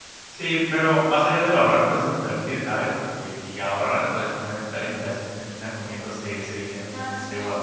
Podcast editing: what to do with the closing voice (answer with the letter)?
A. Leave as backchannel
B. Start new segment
B